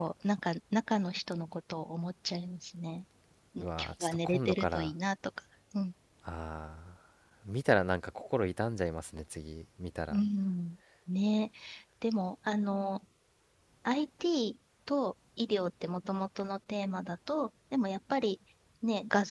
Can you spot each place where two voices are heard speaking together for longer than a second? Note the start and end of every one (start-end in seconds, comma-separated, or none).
3.6-4.9